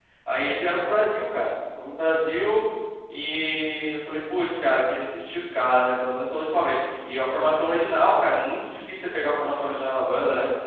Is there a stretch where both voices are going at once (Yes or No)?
No